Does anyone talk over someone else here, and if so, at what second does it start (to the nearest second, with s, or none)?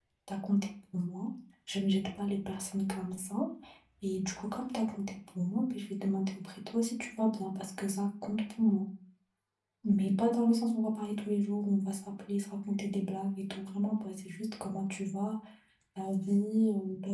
none